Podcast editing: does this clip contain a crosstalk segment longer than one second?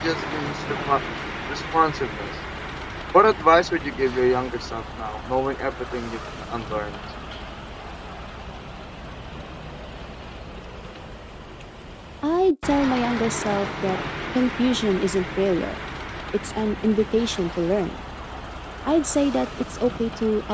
No

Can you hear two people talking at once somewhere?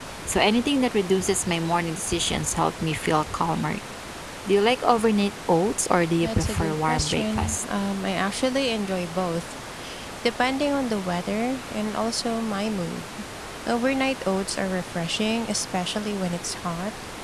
Yes, from 6.2 s

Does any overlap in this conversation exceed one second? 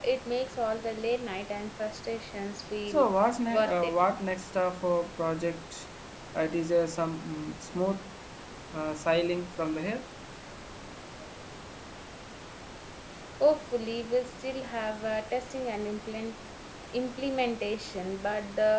No

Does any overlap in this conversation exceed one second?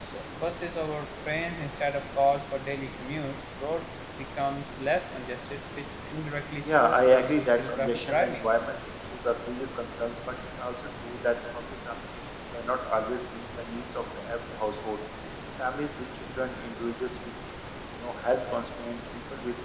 Yes, from 6.7 s

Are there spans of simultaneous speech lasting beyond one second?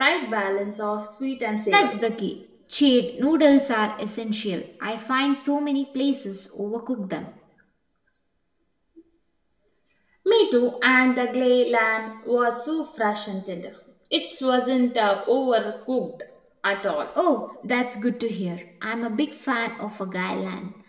No

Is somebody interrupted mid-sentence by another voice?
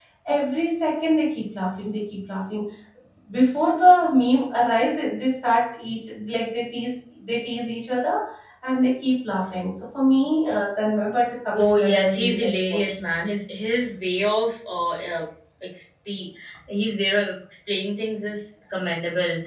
Yes, from 11.5 s

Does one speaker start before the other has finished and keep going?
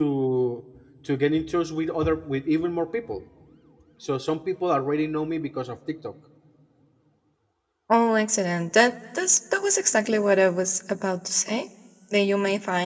No

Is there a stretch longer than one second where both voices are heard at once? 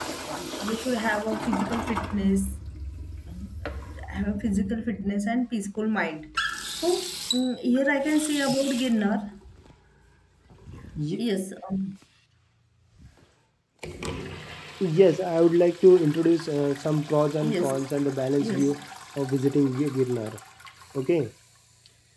No

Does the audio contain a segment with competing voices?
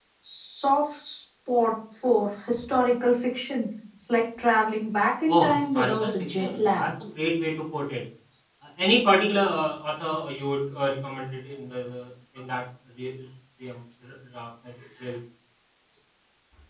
Yes, from 5.3 s

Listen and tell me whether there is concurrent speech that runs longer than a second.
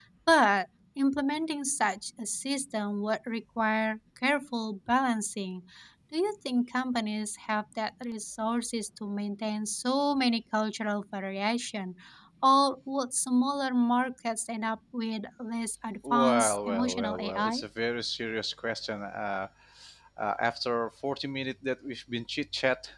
Yes, from 16.0 s

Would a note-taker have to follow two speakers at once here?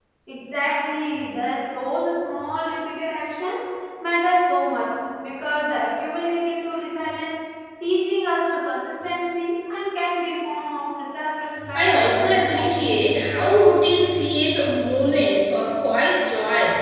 Yes, from 11.7 s

